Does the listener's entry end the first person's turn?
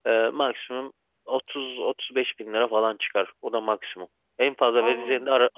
No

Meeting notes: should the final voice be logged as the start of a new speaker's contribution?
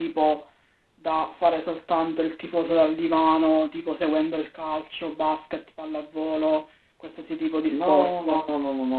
Yes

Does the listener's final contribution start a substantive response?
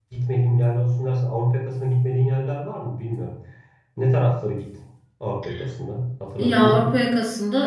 Yes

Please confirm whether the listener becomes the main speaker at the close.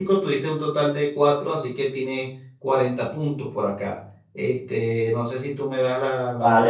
Yes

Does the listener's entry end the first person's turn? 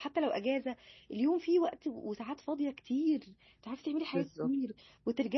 No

